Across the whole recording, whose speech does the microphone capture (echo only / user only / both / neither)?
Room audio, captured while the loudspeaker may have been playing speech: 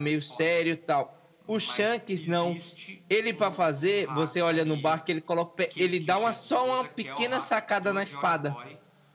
both